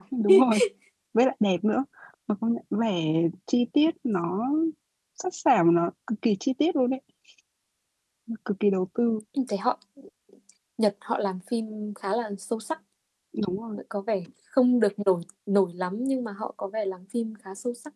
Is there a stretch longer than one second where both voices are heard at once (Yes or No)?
No